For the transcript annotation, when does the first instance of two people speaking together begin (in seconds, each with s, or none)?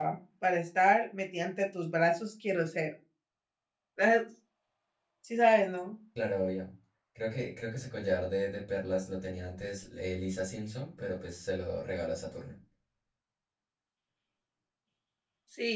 none